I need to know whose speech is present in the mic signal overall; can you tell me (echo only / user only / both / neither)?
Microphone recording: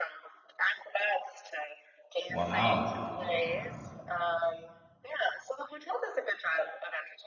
both